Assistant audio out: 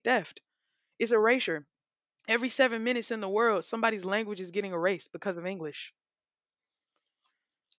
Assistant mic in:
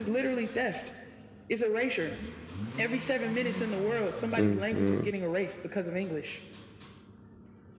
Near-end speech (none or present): present